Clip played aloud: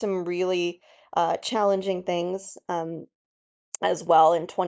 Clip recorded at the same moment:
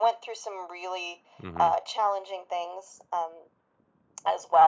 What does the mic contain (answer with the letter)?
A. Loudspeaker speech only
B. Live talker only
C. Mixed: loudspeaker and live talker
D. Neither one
C